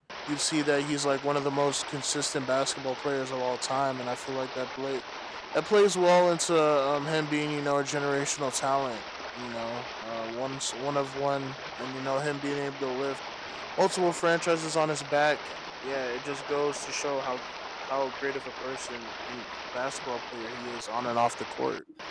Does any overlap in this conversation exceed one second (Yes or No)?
No